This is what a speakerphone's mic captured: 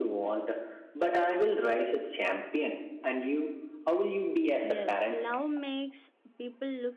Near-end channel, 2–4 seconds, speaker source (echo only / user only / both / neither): echo only